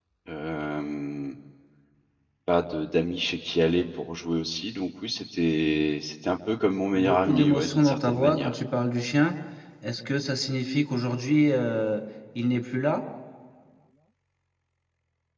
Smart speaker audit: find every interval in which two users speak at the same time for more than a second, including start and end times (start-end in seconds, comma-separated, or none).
6.9-8.5